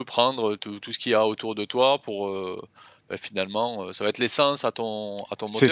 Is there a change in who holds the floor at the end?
Yes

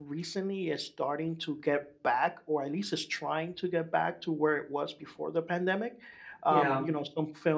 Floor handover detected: No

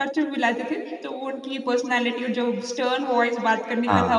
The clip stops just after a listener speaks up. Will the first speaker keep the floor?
Yes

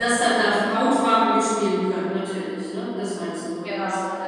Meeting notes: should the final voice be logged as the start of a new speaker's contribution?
Yes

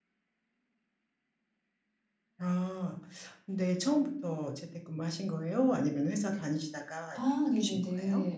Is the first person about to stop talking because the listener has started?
Yes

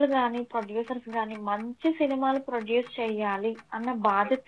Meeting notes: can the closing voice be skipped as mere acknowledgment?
Yes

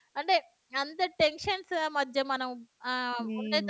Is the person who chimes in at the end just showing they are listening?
Yes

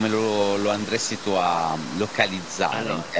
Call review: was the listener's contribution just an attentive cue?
Yes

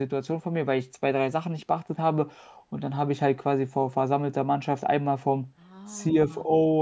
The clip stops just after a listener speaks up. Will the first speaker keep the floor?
Yes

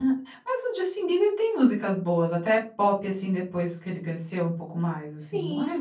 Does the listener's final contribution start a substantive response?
Yes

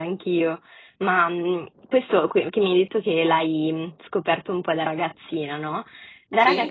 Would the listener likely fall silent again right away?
Yes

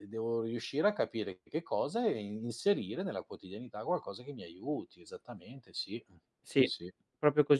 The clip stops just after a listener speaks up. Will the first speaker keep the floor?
No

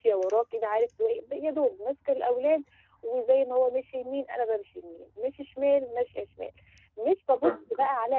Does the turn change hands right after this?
No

